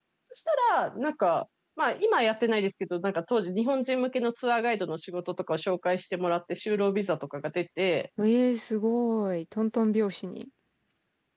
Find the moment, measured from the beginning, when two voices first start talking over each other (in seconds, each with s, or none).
none